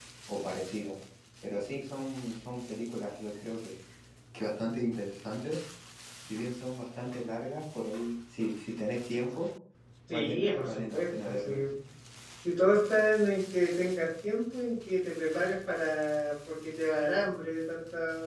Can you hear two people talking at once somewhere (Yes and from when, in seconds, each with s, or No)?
Yes, from 10.1 s